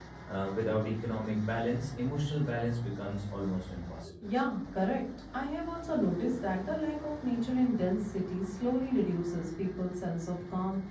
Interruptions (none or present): none